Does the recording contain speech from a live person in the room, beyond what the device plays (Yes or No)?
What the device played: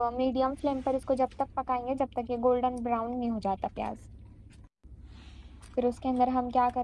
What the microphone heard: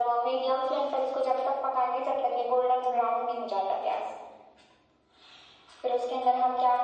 No